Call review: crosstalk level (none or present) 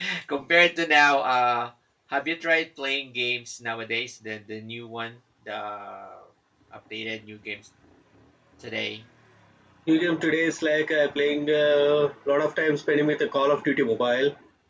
none